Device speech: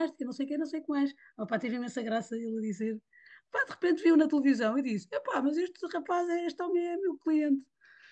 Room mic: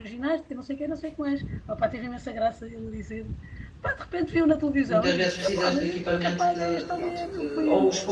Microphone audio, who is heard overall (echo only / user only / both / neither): both